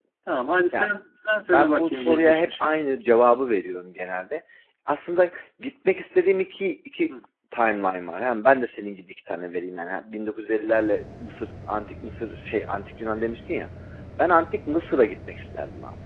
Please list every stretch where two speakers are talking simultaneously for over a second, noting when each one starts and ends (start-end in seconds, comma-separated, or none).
1.5-2.7